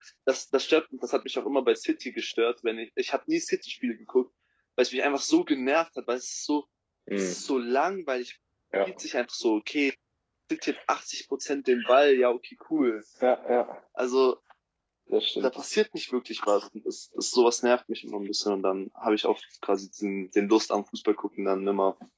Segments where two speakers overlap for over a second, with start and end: none

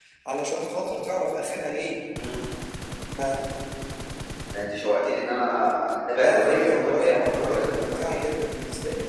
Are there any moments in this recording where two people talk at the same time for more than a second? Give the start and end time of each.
6.2-8.3

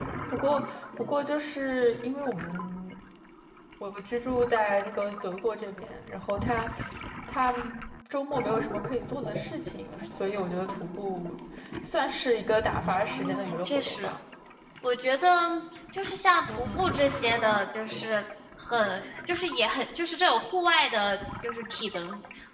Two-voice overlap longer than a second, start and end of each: 12.9-14.1

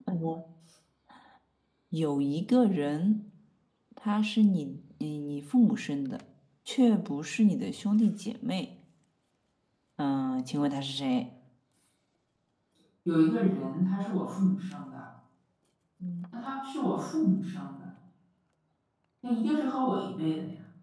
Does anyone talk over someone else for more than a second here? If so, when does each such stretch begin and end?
none

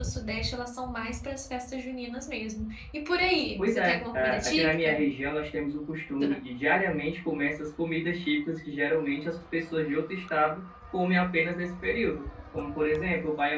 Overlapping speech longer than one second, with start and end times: 3.6-5.0

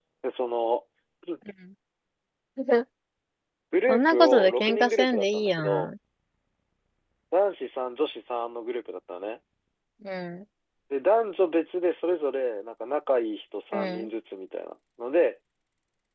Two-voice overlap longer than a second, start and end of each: 3.9-5.9

